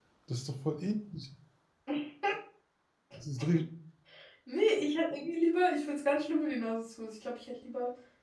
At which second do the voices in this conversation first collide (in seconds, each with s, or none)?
none